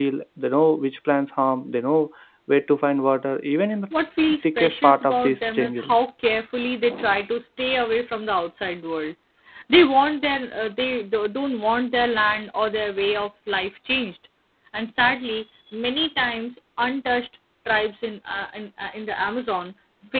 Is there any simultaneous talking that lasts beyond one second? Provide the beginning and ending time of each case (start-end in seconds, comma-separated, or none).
4.4-5.9